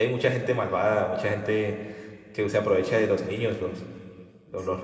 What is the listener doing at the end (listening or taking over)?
taking over